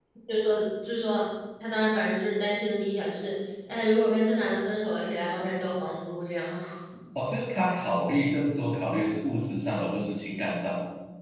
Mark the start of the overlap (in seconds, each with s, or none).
none